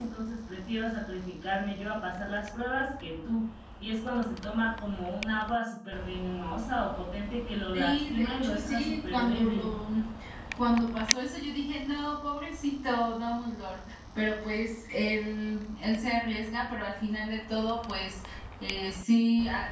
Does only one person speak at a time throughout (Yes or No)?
No